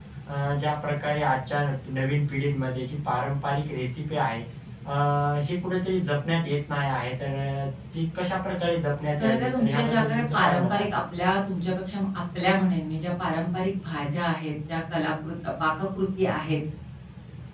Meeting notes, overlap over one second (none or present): present